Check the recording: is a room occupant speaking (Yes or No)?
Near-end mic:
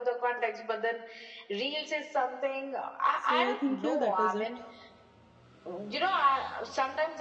Yes